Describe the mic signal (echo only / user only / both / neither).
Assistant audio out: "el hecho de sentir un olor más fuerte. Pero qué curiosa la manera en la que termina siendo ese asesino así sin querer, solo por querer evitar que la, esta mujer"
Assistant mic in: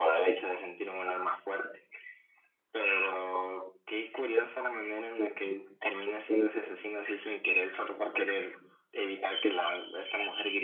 echo only